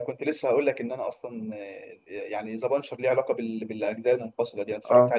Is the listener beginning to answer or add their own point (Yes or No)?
No